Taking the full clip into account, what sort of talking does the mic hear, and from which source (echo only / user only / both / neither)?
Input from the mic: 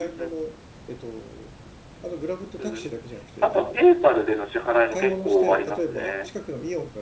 both